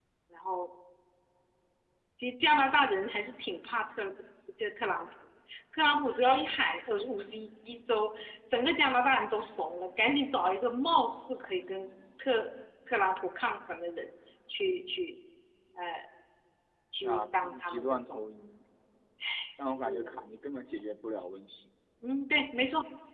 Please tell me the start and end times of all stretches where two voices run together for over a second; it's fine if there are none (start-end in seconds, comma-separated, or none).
17.0-18.2